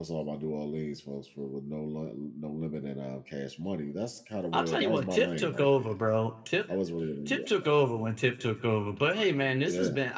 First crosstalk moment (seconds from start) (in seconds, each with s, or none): 4.5 s